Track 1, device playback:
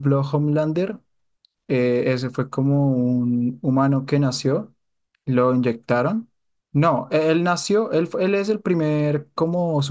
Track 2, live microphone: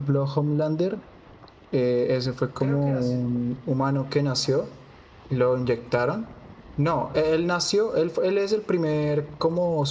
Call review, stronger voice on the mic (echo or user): echo